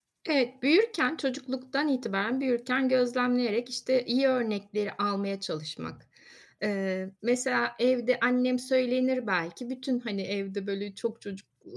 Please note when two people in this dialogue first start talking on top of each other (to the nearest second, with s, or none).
none